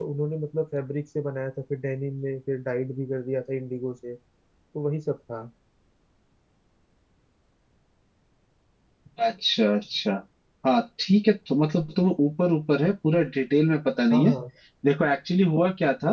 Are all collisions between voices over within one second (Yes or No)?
Yes